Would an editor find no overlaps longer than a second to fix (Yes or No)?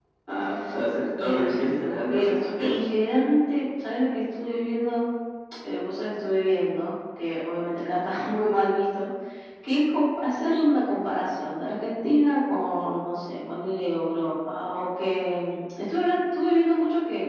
No